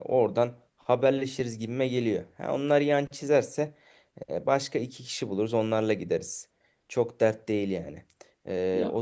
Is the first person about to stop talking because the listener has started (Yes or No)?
No